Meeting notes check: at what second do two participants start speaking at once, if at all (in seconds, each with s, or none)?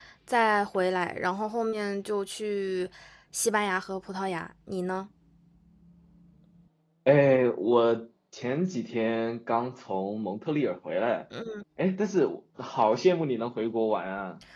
none